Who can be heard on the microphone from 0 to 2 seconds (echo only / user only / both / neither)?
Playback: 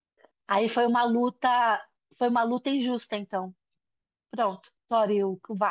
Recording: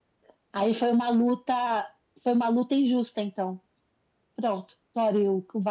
echo only